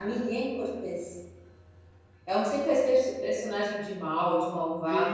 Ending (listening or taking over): taking over